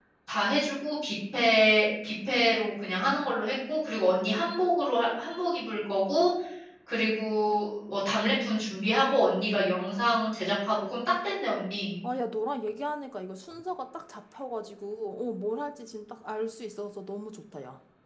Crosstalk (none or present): none